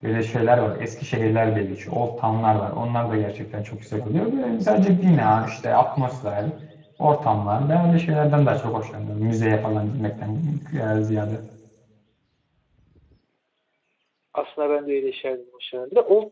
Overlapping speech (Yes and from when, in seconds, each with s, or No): No